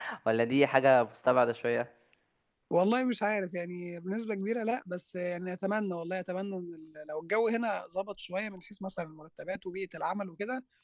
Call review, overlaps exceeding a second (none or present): none